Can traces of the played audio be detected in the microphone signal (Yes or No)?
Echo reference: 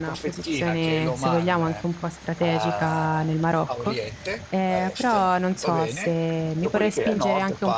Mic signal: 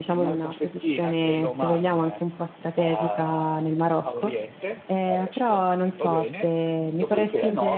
Yes